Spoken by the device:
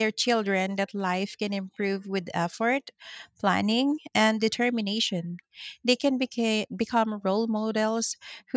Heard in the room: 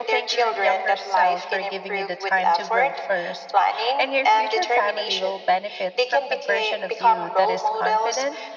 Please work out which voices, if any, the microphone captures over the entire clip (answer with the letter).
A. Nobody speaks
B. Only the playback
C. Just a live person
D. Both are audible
D